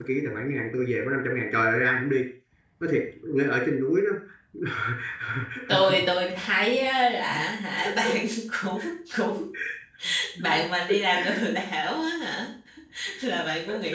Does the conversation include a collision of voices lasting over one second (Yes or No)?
No